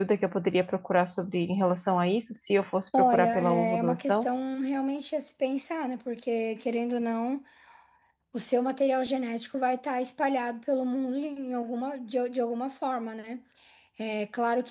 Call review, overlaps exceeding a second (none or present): present